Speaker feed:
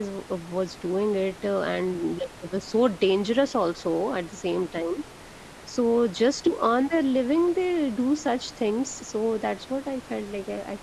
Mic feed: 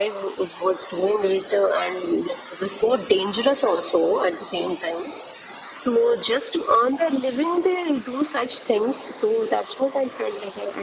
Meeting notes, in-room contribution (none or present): none